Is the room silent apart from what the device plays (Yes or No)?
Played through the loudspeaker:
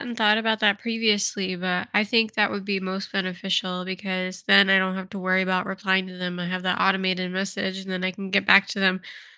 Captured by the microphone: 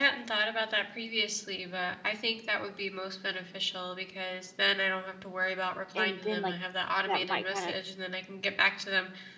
No